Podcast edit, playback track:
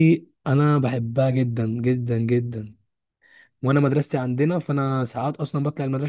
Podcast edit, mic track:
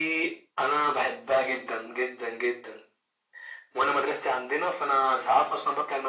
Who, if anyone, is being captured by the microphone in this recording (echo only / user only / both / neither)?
echo only